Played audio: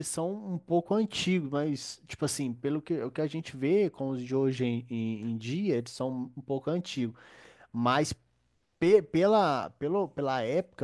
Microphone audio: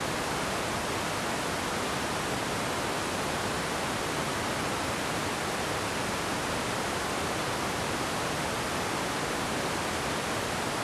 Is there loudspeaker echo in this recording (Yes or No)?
No